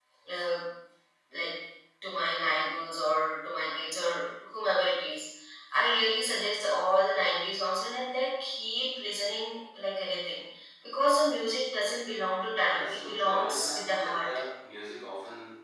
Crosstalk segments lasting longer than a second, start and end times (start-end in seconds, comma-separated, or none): 12.7-14.3